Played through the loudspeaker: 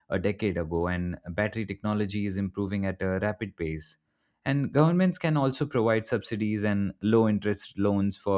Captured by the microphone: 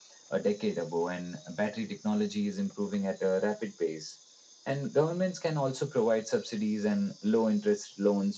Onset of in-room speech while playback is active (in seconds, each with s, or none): none